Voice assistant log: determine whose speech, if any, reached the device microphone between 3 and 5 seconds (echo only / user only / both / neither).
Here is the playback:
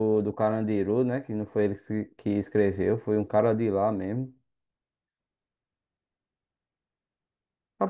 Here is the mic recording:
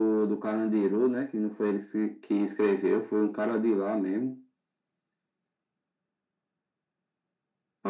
echo only